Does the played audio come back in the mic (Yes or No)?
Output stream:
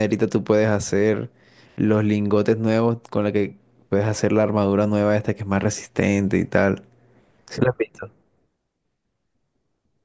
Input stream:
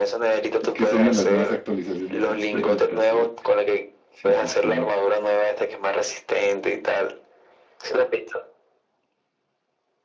Yes